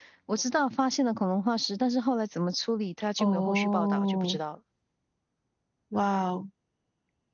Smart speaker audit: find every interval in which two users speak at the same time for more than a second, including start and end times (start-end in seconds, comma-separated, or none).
3.2-4.4